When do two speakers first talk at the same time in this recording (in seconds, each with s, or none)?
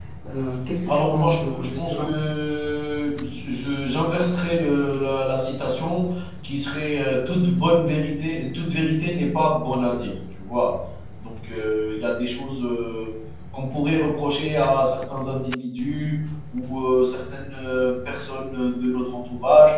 0.9 s